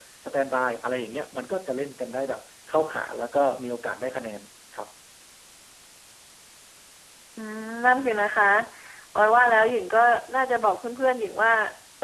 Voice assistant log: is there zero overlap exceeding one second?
Yes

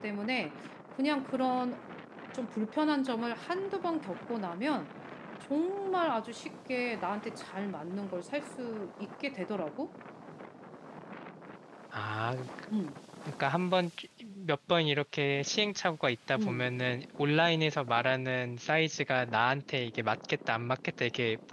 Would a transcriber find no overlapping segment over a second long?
Yes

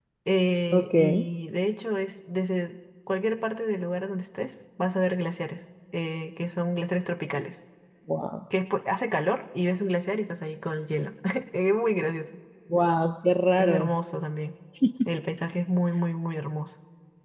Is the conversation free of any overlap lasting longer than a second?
Yes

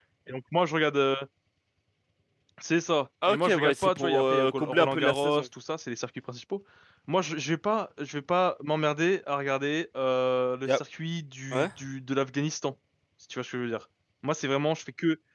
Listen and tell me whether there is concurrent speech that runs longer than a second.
Yes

